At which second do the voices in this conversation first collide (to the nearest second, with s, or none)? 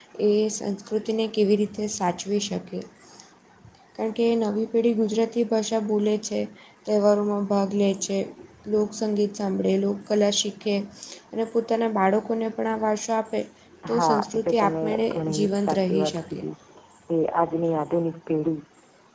14 s